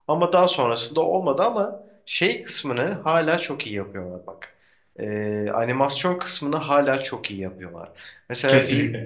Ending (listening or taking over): listening